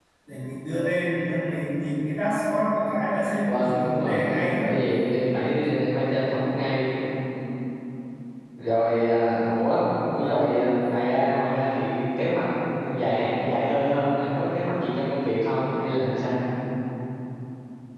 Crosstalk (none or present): present